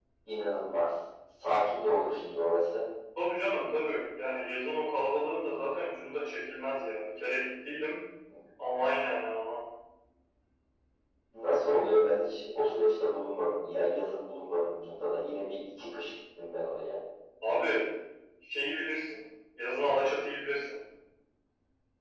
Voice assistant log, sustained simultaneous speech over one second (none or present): none